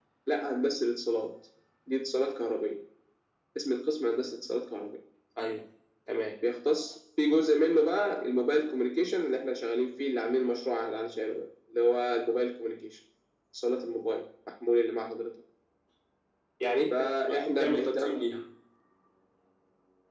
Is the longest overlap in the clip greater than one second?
Yes, from 16.9 s

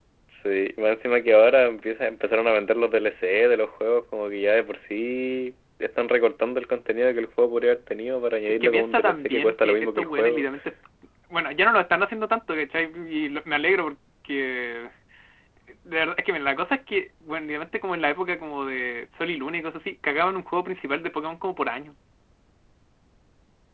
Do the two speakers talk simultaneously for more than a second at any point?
Yes, from 8.6 s

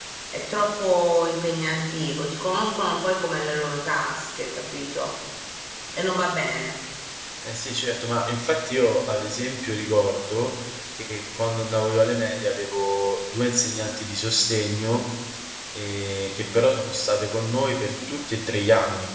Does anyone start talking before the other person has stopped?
No

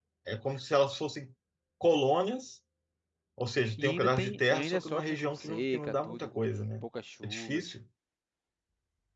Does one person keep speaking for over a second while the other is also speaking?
Yes, from 3.8 s

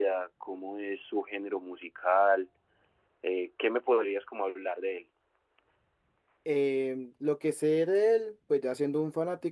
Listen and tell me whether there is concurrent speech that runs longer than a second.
No

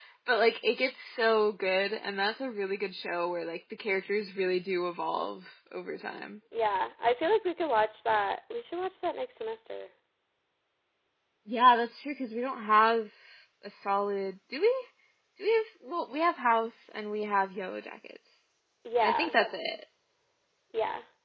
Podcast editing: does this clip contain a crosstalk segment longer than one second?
No

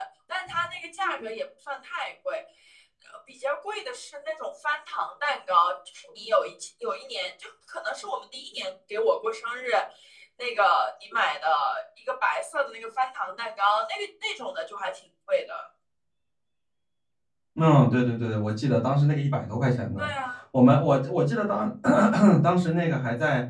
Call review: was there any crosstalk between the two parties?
No

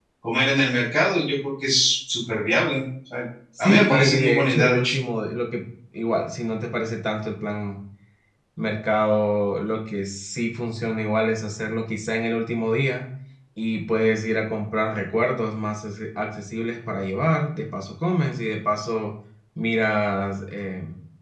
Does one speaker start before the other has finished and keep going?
Yes, from 3.6 s

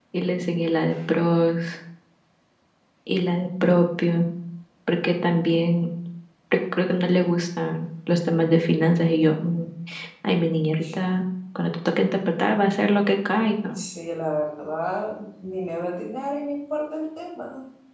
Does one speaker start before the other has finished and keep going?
No

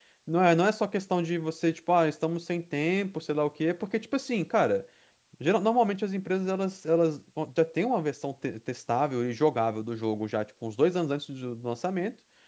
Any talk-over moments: No

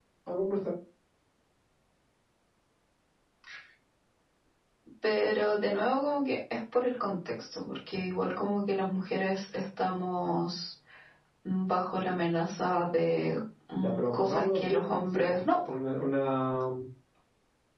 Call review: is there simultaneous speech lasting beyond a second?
Yes, from 13.8 s

